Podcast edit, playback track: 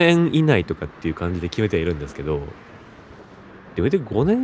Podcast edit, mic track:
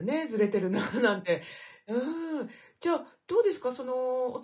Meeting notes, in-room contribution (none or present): present